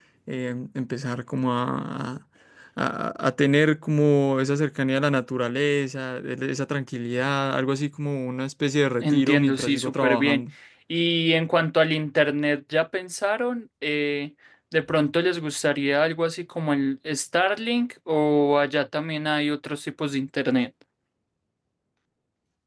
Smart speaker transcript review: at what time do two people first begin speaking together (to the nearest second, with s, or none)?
9 s